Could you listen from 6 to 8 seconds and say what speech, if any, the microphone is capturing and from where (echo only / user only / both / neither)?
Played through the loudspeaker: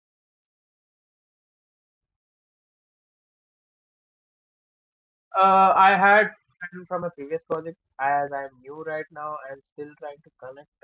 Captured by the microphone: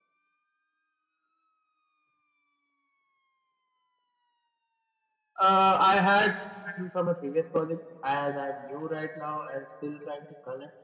echo only